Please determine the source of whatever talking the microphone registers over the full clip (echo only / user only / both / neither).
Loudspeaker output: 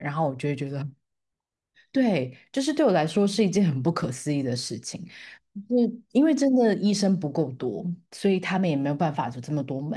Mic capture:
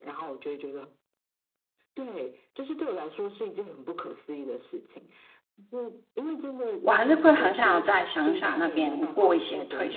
both